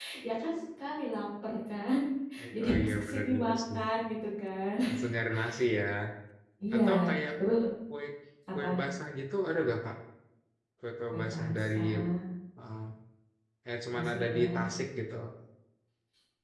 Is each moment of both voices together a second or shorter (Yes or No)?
No